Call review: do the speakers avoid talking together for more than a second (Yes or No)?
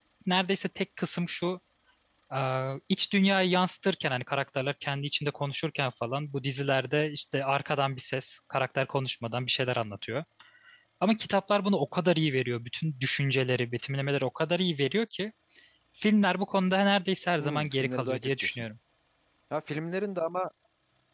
No